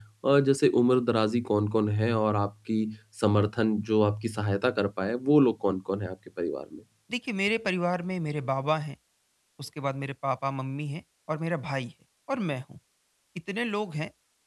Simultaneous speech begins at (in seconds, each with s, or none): none